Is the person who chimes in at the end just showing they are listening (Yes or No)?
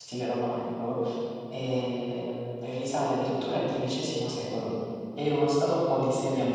Yes